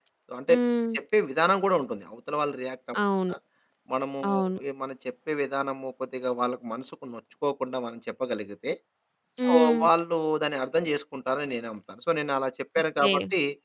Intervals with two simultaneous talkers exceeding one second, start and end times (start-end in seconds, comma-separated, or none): none